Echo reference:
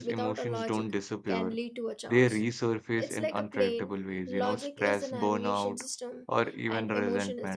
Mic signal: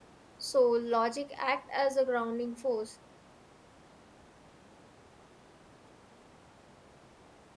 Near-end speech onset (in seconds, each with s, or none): 0.4 s